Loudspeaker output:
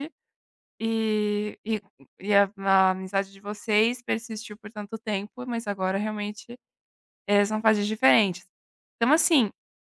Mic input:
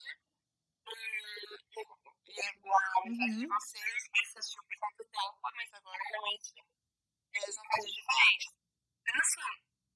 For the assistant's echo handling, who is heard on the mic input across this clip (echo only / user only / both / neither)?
both